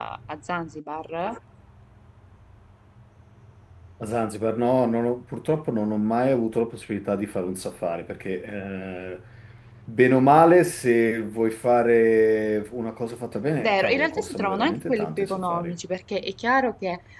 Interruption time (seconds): 14 s

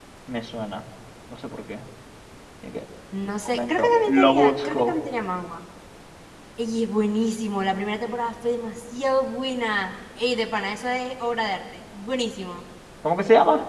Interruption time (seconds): 3 s

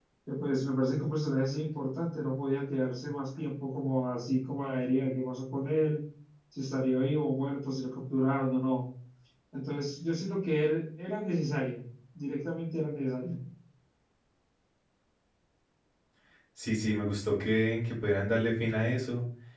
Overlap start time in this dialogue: none

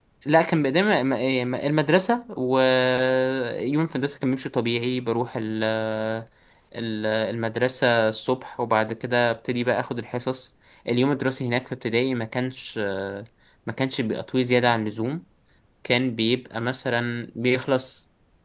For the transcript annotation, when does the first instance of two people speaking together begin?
none

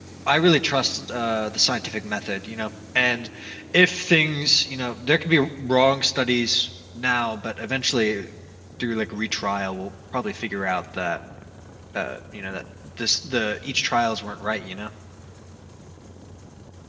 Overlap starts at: none

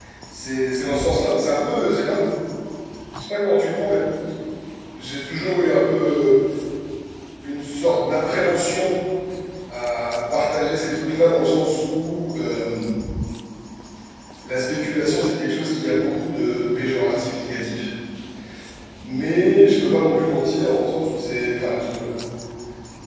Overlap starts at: none

